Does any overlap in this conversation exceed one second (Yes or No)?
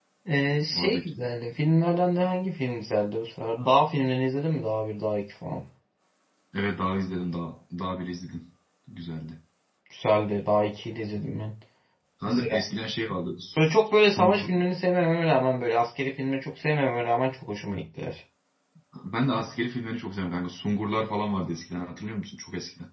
No